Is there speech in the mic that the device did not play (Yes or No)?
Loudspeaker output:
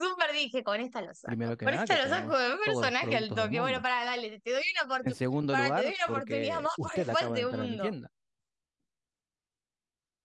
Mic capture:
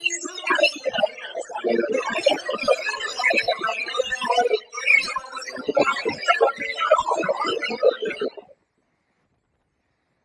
No